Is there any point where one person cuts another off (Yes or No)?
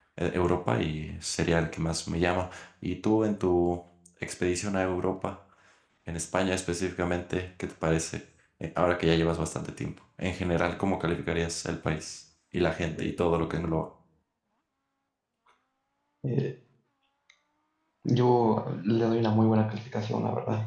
No